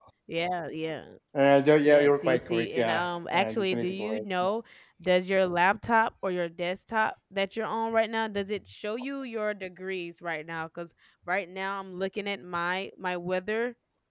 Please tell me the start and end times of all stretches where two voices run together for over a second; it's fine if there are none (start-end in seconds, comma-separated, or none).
1.8-4.5